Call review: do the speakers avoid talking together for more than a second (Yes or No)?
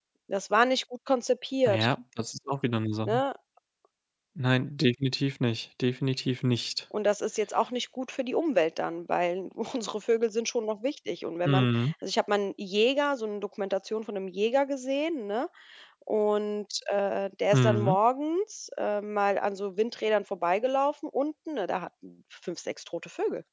Yes